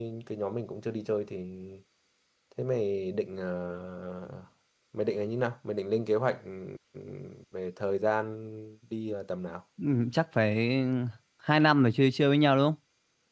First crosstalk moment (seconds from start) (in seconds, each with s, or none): none